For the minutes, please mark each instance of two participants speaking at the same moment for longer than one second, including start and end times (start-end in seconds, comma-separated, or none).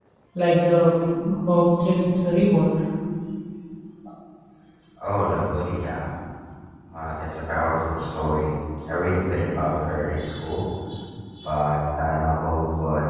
none